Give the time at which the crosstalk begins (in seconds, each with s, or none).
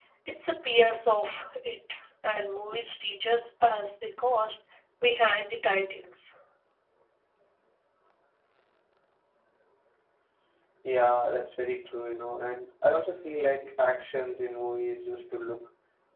none